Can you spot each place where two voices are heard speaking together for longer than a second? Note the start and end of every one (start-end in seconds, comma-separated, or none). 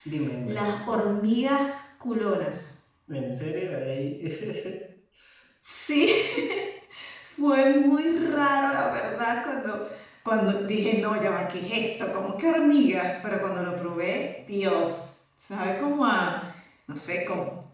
none